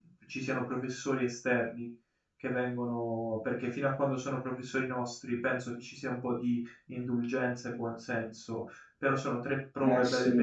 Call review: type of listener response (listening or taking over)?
taking over